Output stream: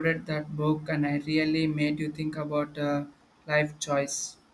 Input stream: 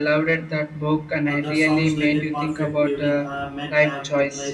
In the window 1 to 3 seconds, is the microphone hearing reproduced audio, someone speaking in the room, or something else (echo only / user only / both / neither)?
both